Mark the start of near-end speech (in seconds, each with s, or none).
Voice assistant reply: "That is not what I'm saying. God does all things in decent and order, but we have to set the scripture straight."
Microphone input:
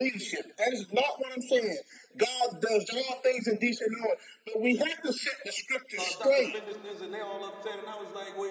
5.9 s